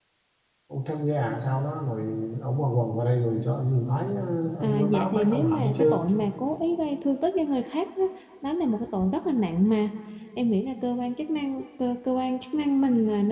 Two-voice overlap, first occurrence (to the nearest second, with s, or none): 5 s